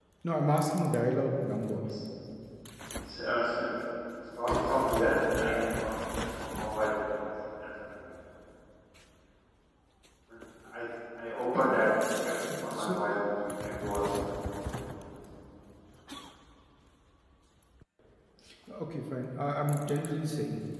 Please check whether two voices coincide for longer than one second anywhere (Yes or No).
No